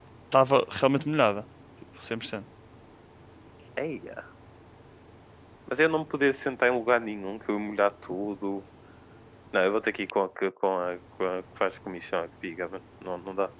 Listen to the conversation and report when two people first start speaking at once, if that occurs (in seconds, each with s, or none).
none